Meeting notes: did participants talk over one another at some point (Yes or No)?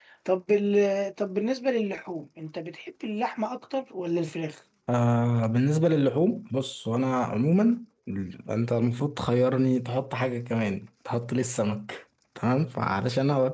No